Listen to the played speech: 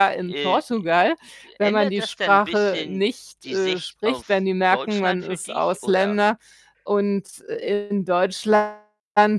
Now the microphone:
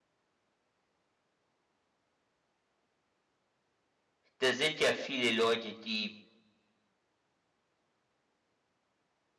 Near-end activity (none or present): present